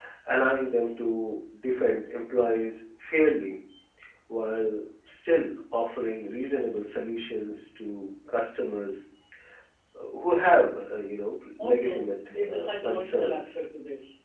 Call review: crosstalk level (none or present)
present